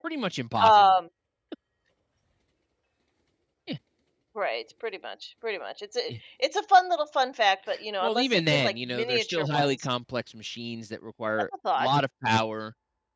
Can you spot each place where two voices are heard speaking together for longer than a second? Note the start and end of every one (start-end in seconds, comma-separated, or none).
8.0-9.9